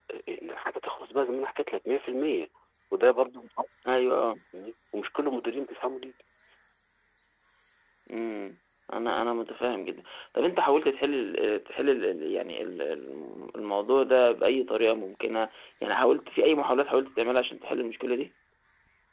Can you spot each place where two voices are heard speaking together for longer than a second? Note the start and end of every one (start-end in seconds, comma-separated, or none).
none